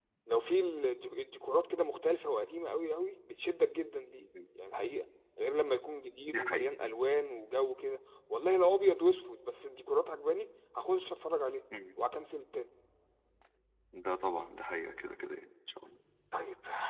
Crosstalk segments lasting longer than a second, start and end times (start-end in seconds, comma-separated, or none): none